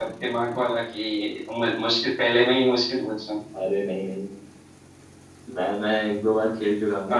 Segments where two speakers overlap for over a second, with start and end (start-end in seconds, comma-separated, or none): none